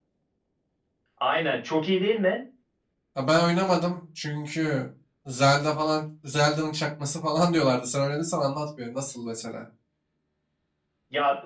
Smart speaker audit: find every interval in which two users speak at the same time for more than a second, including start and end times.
none

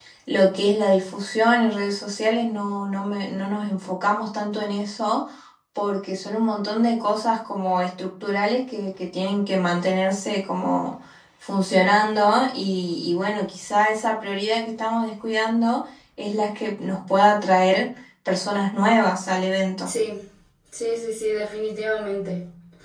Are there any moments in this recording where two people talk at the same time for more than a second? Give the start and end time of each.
none

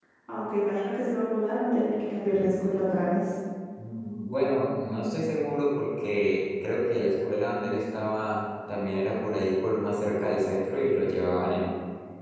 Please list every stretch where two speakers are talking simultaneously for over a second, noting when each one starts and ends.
none

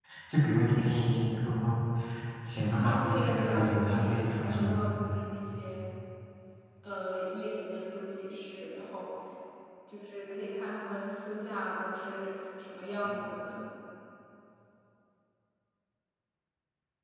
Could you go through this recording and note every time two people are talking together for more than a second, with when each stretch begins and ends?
2.7-4.9

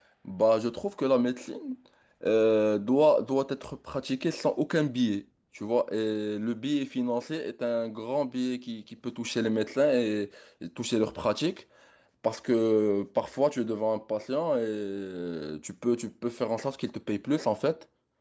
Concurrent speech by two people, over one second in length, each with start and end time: none

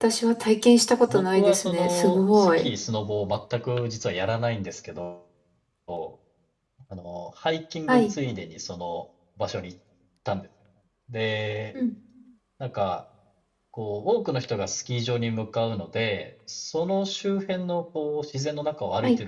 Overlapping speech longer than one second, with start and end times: 1.1-2.7

